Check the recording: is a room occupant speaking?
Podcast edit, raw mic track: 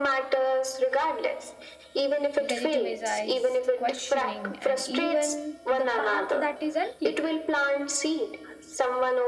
Yes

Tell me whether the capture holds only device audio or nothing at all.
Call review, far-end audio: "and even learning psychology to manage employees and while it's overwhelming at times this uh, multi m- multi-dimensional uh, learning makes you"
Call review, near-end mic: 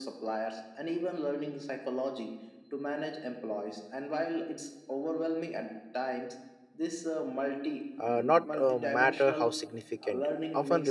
No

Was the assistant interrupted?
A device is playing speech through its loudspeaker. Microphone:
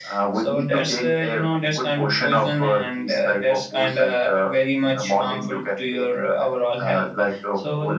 No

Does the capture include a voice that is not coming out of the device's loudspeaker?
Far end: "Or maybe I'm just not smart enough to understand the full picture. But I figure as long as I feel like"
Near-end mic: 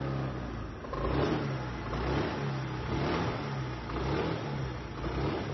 No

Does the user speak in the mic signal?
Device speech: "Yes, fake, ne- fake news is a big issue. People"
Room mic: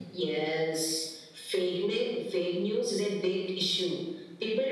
No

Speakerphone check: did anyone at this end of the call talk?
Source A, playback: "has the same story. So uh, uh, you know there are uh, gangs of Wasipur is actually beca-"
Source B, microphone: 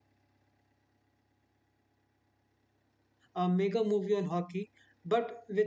Yes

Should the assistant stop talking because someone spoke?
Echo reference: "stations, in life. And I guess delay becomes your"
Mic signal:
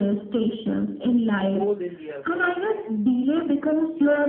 Yes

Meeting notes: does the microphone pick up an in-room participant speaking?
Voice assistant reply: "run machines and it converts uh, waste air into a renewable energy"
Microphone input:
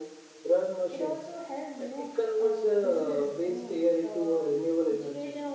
Yes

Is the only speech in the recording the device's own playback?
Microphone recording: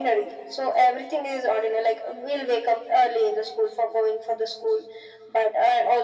Yes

